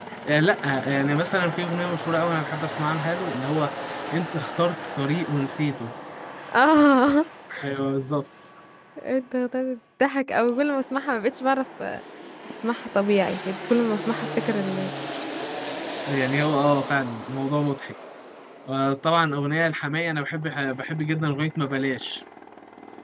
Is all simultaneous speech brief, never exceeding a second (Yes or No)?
Yes